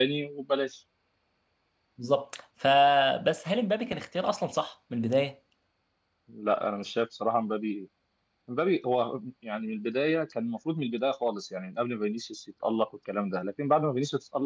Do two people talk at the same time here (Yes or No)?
No